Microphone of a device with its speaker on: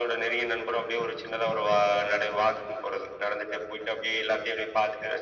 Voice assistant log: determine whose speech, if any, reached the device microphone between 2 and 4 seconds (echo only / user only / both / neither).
echo only